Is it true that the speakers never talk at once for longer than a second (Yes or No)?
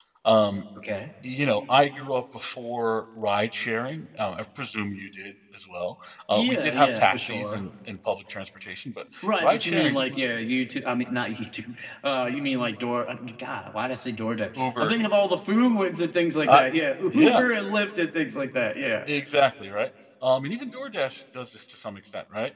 No